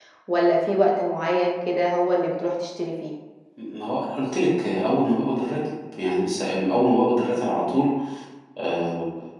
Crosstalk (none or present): none